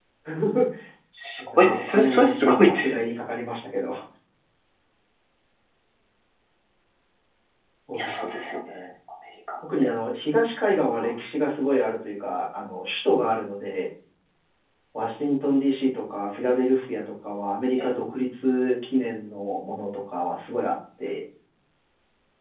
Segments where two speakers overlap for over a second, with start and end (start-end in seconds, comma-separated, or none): 1.4-3.0